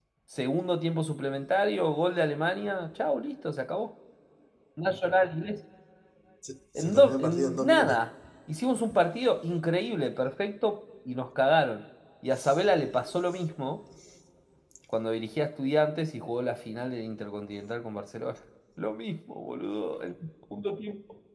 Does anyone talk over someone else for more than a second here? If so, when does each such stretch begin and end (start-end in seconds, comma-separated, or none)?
6.8-8.0